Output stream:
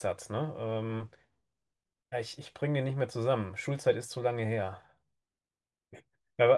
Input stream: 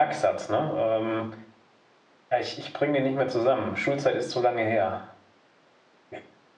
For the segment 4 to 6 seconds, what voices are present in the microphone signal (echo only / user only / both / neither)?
echo only